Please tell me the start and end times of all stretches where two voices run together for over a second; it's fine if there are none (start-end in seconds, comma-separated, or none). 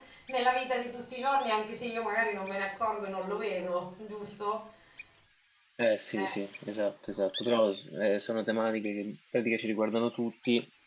none